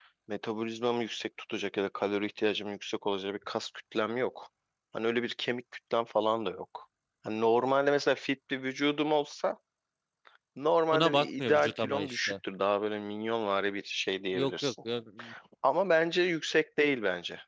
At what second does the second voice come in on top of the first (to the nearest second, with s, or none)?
11 s